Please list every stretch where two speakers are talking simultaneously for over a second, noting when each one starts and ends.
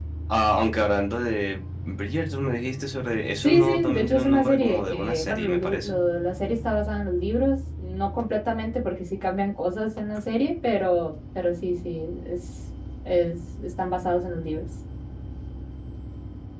3.4-6.0

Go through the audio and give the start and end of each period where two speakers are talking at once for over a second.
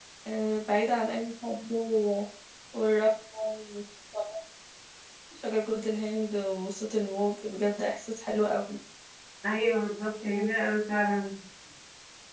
none

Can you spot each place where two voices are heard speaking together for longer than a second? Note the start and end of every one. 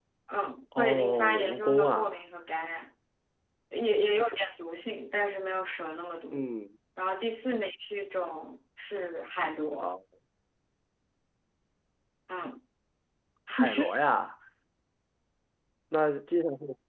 0.8-2.1

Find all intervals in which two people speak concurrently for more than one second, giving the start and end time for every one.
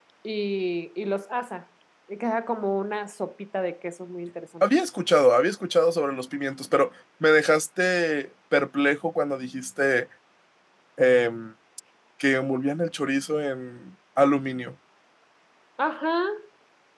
none

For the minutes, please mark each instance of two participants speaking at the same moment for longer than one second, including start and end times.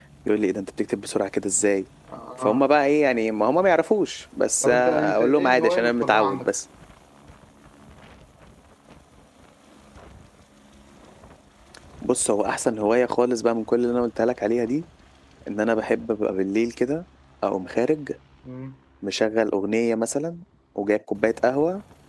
4.6-6.5

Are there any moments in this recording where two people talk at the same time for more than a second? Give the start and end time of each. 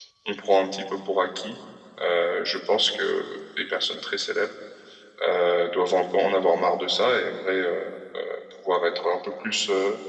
none

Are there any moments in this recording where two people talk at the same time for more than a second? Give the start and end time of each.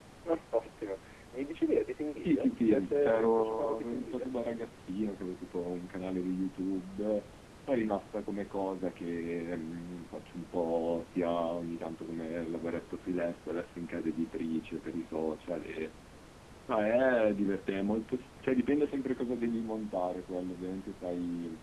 2.2-4.3

